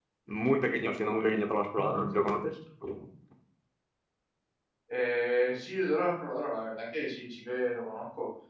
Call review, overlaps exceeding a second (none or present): none